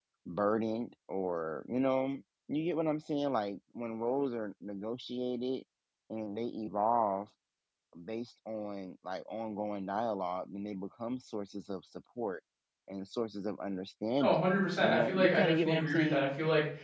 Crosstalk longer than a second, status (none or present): present